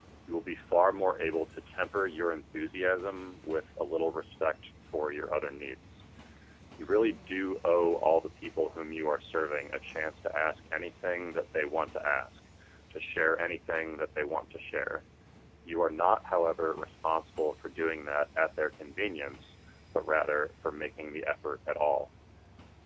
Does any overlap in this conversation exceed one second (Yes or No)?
No